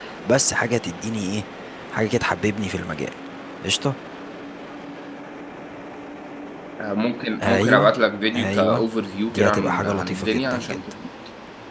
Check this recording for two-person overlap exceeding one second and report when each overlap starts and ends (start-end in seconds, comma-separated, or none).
9.3-10.8